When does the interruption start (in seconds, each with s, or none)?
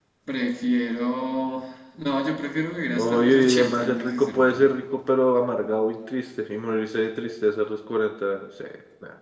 2.9 s